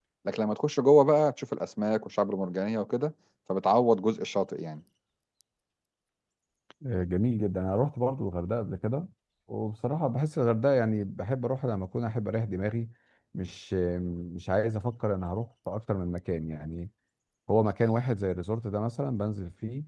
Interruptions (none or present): none